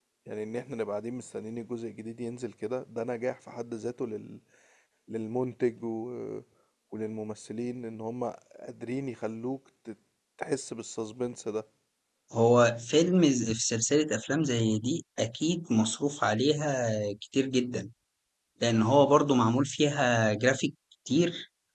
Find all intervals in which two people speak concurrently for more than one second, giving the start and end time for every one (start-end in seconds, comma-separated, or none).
none